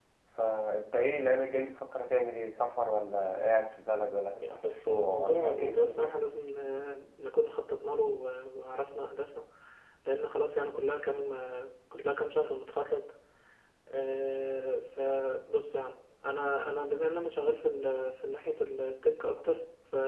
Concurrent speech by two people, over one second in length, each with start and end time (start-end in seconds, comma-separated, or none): 4.5-6.1